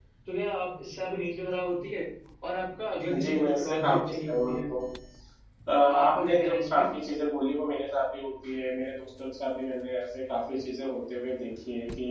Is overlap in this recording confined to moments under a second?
No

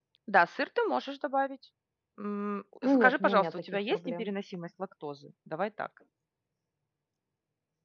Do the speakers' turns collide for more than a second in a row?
Yes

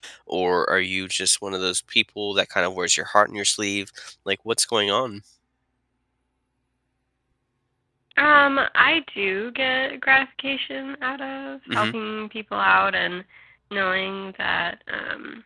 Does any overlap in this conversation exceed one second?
No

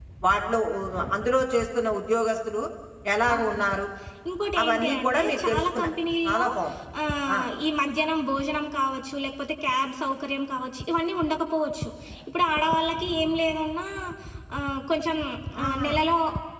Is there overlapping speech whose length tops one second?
Yes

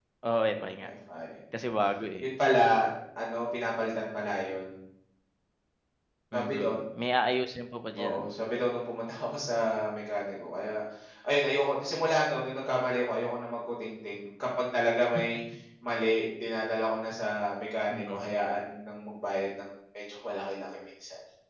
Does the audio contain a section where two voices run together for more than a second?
No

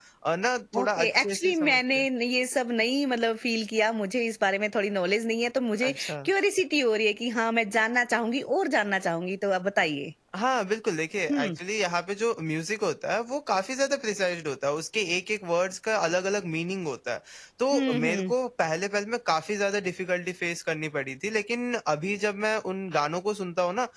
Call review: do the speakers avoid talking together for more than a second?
No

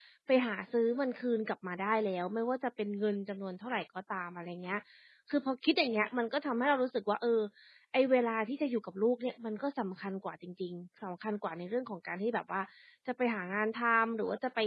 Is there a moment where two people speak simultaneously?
No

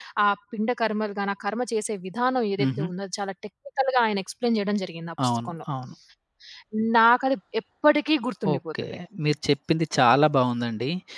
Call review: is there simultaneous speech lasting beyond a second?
No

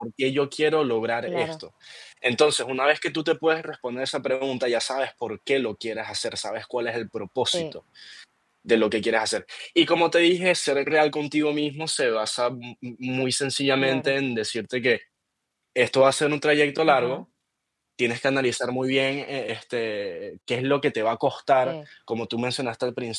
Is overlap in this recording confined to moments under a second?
Yes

